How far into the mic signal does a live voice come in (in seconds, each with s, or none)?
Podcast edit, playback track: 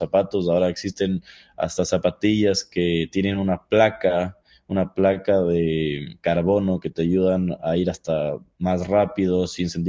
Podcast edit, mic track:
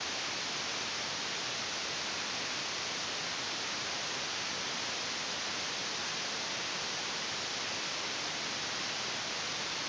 none